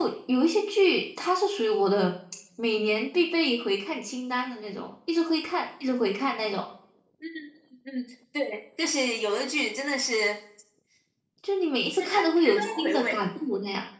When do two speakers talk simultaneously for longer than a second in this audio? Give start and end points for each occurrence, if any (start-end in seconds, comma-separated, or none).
12.0-13.2